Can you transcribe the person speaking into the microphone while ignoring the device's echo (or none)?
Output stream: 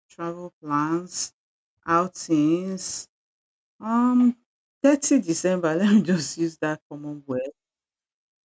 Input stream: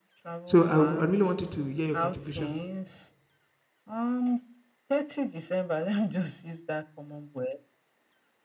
So I, I really wanted to hear your contribution